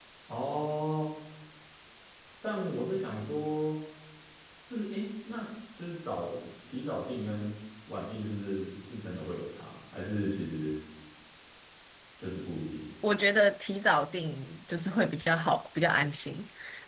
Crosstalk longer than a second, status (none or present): none